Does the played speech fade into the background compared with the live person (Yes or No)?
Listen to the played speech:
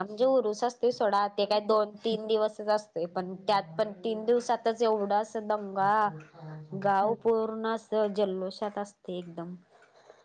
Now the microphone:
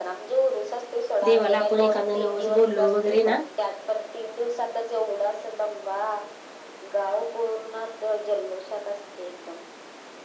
Yes